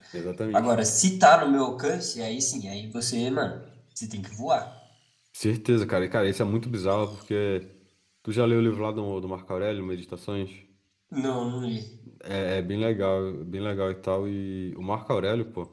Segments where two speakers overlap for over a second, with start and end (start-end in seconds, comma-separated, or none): none